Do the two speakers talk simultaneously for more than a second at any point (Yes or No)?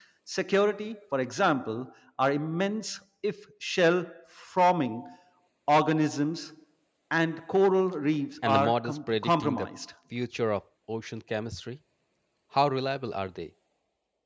Yes